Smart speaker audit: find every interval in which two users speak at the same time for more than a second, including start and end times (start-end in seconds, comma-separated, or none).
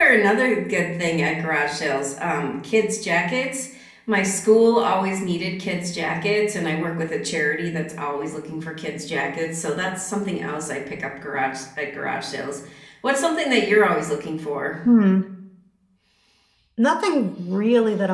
none